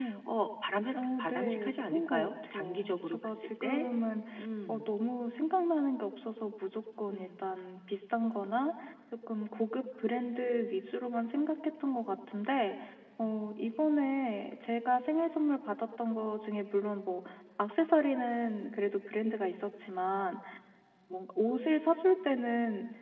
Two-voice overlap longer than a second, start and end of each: 0.9-3.8

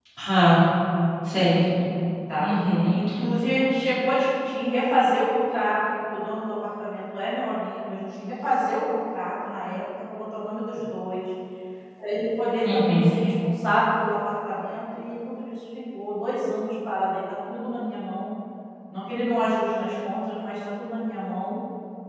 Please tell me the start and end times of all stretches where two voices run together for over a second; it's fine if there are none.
none

